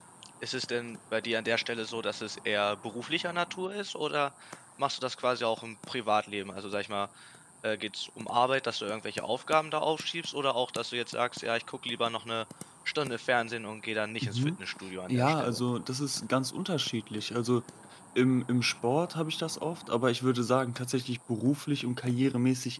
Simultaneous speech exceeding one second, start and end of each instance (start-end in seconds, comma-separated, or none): none